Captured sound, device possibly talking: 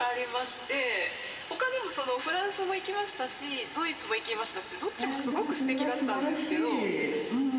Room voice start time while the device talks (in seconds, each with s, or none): 5.0 s